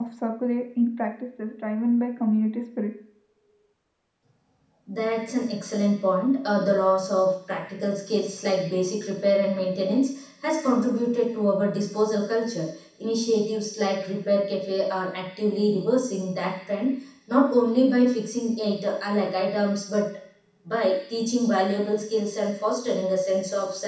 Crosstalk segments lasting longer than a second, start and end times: none

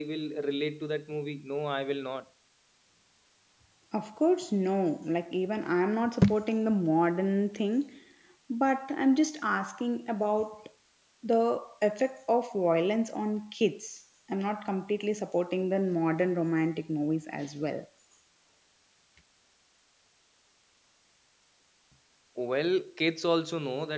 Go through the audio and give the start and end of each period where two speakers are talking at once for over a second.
none

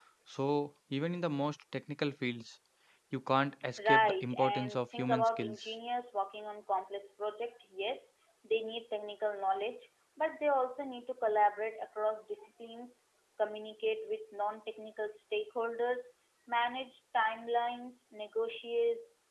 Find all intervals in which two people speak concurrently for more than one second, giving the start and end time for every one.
3.8-5.7

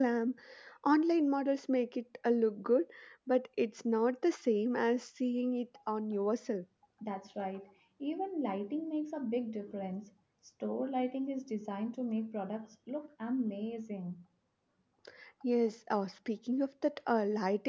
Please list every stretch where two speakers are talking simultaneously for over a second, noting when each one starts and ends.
none

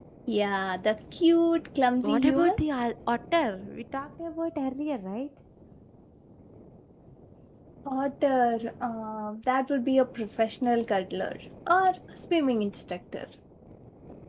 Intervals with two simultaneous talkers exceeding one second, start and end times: none

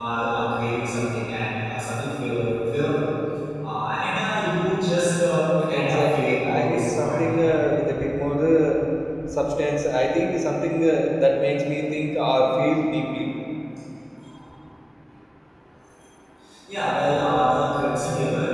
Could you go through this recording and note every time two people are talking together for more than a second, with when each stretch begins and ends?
5.7-7.4

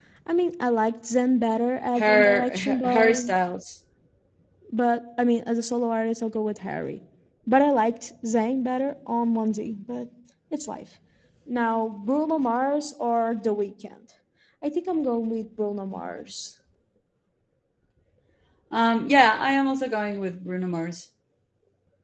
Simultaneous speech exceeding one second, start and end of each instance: 1.9-3.2

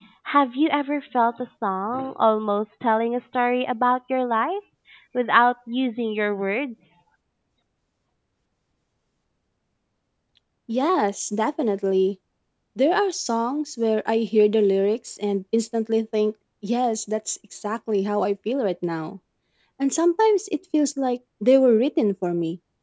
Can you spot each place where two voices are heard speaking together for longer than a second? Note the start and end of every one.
none

